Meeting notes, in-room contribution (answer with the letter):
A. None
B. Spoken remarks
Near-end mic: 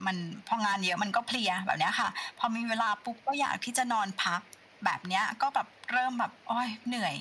A